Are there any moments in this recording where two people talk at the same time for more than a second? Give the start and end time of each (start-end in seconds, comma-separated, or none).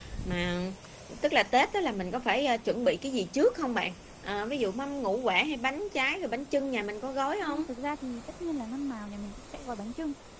none